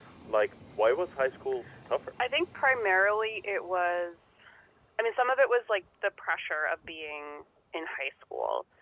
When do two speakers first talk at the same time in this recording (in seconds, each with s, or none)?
none